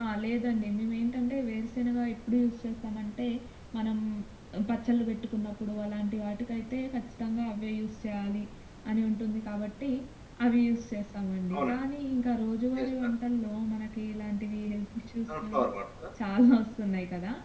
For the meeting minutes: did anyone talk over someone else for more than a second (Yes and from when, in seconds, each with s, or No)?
No